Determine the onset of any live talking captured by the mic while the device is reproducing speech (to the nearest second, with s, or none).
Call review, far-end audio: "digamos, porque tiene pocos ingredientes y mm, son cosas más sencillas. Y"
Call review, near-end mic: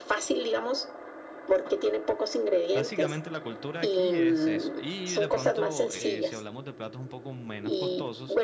3 s